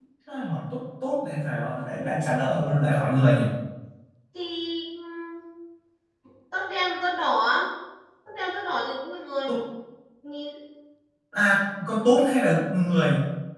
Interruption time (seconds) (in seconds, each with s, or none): none